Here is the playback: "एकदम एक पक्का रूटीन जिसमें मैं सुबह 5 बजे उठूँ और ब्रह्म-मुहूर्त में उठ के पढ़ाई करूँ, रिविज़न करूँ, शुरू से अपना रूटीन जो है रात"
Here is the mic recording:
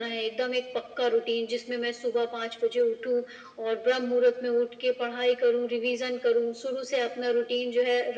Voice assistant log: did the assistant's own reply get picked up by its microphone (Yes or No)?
Yes